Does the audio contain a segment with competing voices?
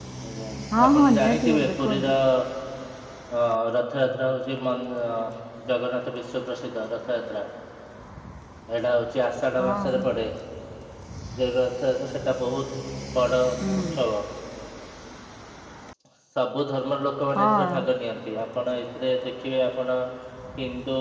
Yes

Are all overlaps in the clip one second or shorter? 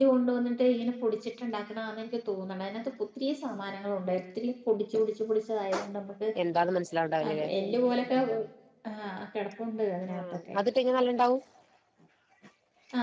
Yes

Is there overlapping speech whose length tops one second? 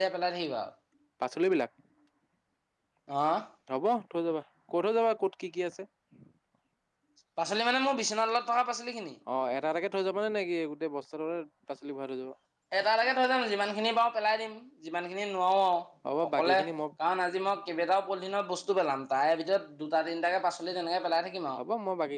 No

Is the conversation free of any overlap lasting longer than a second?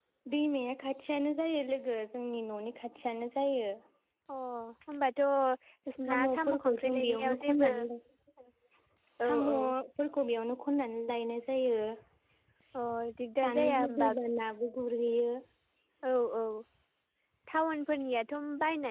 No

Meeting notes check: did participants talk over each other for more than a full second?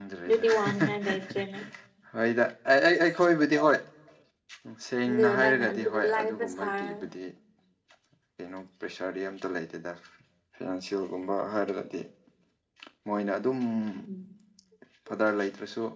Yes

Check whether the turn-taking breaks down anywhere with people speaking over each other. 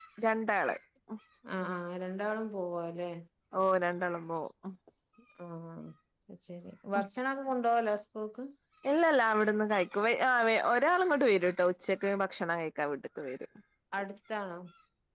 No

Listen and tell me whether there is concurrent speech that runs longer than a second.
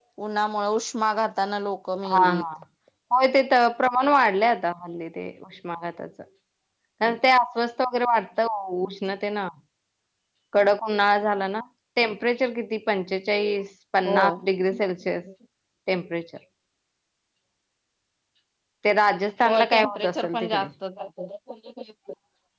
Yes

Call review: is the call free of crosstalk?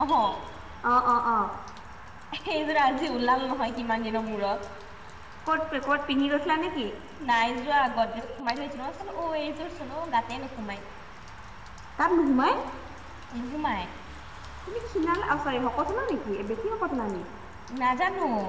Yes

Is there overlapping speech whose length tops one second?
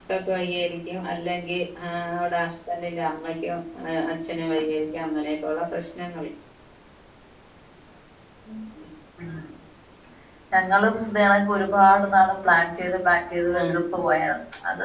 No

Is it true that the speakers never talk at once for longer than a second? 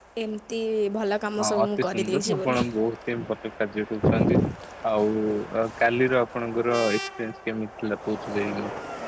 No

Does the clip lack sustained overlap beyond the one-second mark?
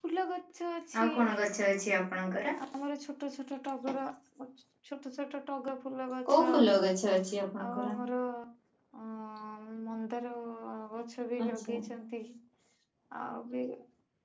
Yes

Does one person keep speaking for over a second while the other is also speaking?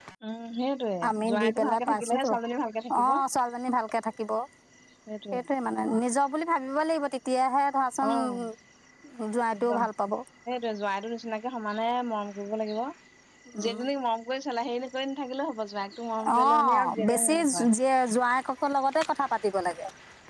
Yes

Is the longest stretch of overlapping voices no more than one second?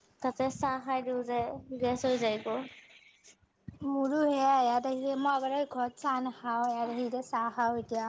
Yes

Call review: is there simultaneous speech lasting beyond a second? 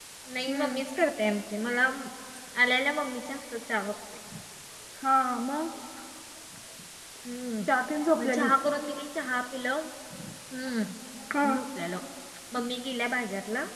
No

